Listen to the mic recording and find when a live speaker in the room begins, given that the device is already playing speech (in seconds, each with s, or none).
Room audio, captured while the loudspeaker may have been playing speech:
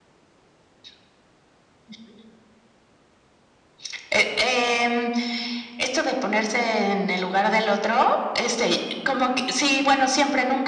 none